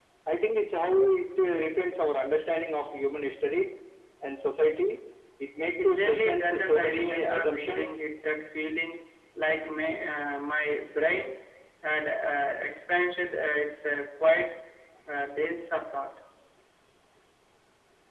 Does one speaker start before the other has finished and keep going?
Yes, from 5.8 s

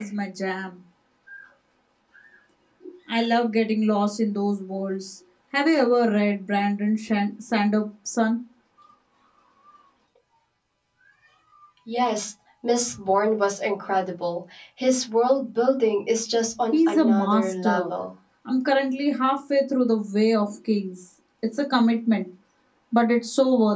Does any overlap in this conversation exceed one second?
Yes, from 16.7 s

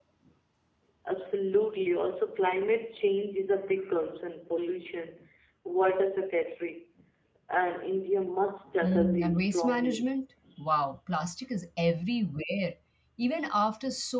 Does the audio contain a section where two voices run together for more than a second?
Yes, from 8.8 s

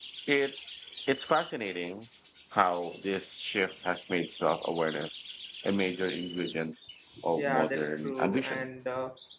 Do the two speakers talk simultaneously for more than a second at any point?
Yes, from 7.4 s

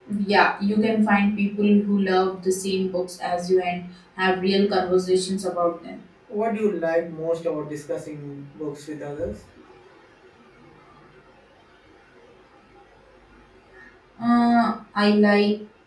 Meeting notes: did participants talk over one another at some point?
No

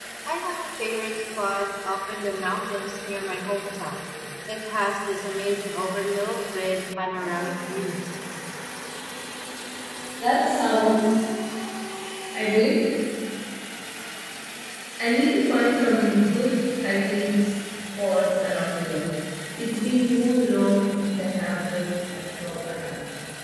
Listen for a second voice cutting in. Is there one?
No

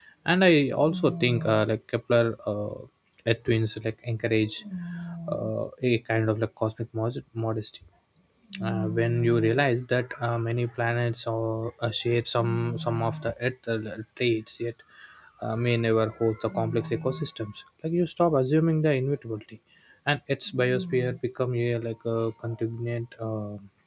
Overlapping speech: No

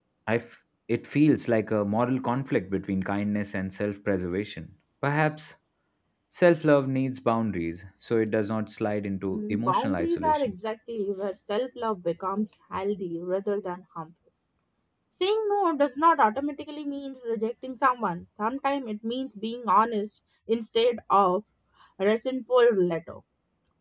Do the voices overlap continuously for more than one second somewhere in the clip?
Yes, from 9.3 s

